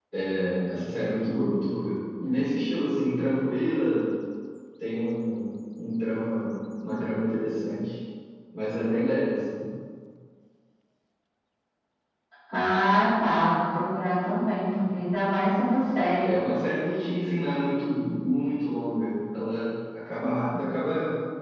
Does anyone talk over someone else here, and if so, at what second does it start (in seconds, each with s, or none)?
none